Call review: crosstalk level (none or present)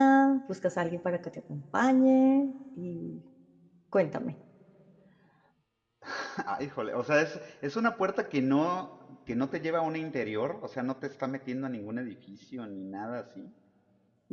none